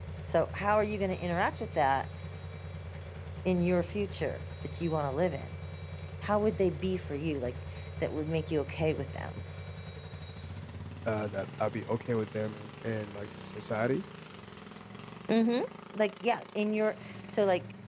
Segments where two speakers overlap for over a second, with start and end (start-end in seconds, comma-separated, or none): none